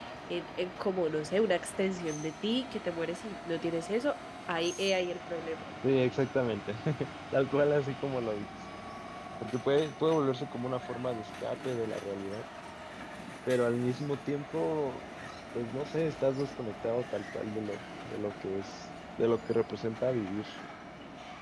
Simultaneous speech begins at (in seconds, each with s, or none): none